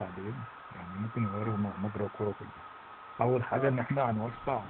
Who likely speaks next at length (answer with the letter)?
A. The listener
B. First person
B